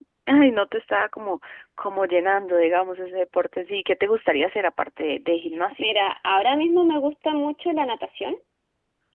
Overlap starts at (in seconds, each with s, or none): none